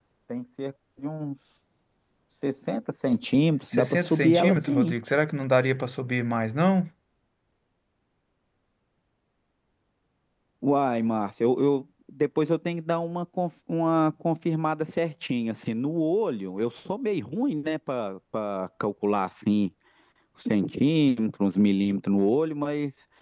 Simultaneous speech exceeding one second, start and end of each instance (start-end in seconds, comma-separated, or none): 3.7-4.9